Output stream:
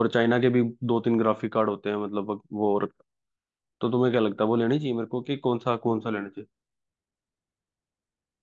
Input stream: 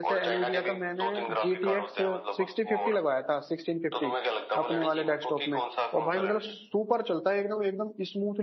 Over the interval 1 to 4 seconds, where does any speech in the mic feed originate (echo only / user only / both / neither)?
both